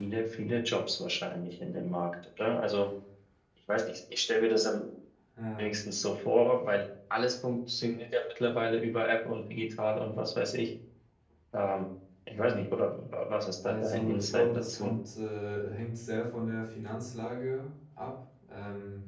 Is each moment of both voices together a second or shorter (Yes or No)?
No